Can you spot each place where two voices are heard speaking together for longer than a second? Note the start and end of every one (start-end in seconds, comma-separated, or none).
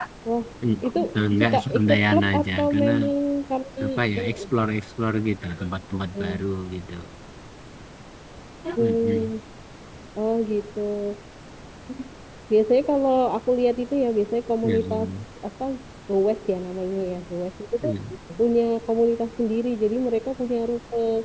1.4-2.9